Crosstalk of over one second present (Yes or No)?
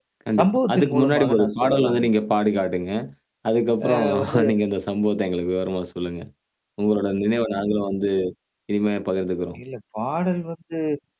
Yes